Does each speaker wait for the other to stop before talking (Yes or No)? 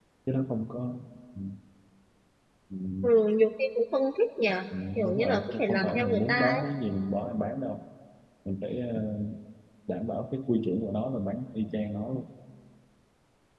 No